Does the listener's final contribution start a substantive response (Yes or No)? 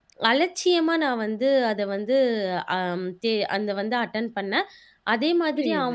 Yes